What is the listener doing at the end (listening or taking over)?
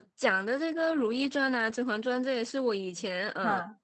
listening